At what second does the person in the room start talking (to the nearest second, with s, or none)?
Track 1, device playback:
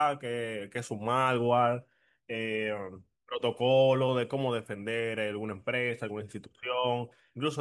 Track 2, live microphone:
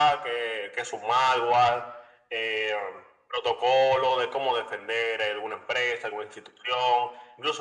none